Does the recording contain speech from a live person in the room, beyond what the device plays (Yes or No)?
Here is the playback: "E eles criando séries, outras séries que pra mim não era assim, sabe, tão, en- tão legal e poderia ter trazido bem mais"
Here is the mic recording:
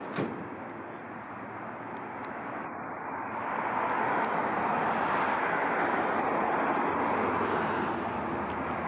No